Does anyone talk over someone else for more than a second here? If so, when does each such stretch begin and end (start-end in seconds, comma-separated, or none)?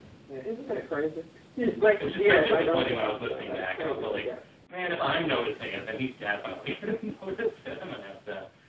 1.9-4.2